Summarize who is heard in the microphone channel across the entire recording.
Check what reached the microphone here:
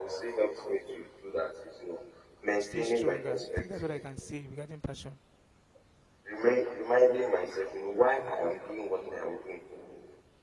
both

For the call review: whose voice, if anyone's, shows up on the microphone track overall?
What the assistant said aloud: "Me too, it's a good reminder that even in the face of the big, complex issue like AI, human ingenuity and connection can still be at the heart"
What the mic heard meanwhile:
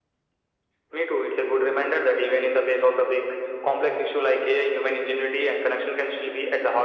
echo only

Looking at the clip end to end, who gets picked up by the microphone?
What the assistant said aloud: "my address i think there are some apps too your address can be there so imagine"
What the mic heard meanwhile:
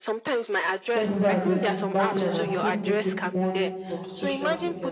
both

